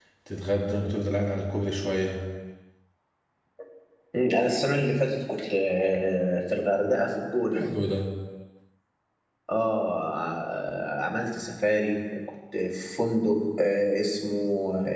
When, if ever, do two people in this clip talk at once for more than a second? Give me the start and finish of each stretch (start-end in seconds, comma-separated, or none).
none